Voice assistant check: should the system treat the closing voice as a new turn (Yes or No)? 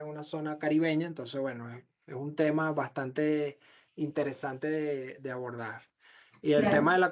No